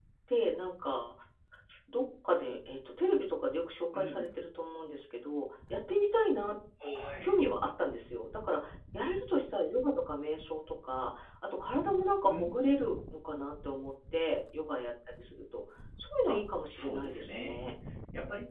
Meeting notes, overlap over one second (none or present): present